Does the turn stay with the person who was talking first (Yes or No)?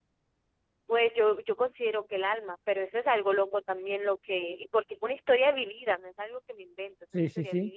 No